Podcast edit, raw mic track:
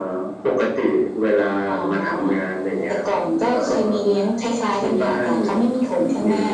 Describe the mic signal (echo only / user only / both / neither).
echo only